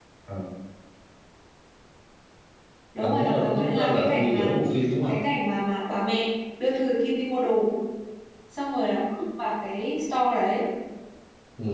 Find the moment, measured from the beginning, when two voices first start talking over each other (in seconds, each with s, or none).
3.0 s